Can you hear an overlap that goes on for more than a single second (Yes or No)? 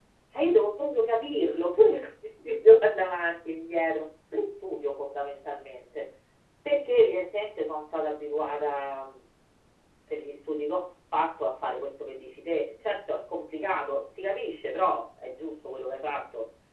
No